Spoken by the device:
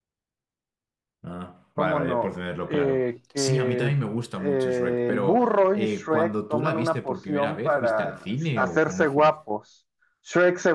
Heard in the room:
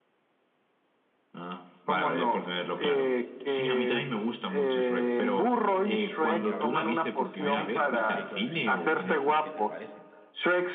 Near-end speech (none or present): present